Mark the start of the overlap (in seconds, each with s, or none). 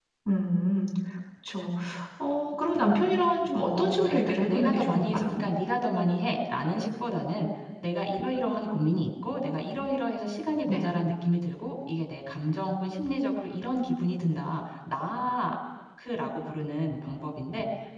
3.7 s